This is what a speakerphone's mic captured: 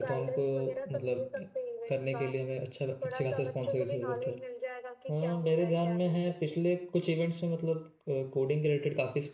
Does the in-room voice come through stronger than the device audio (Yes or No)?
Yes